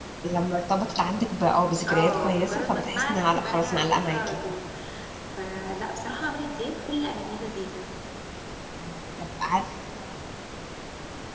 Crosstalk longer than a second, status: present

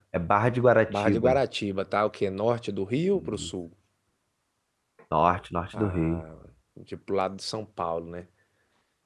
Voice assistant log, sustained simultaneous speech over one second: none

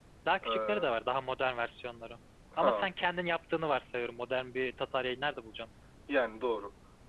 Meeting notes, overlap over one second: none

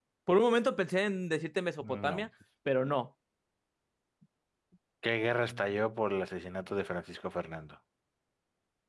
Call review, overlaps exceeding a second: none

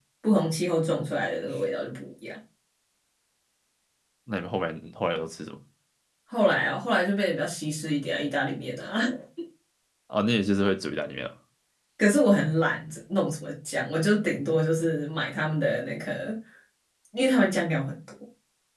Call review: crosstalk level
none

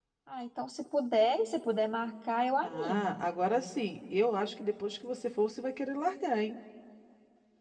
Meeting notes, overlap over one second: none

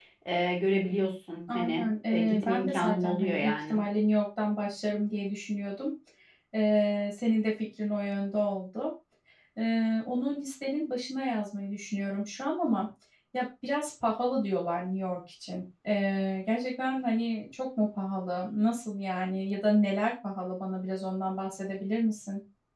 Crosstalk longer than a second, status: present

